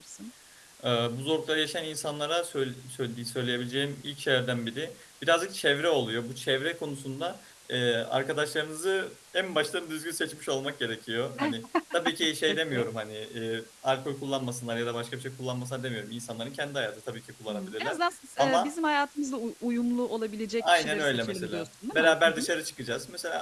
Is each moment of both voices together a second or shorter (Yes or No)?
No